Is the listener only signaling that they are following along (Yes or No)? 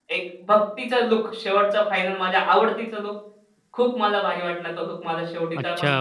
No